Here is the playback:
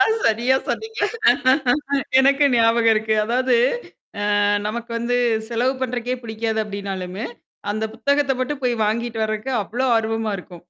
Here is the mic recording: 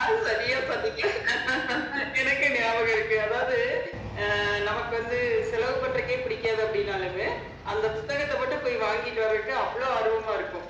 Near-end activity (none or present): none